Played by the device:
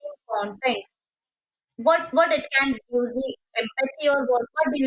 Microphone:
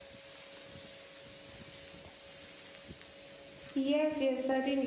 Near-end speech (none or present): present